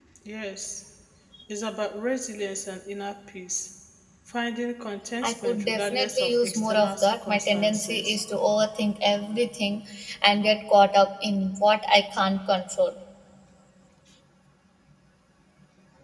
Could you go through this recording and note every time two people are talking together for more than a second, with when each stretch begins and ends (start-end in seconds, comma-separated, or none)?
5.2-8.2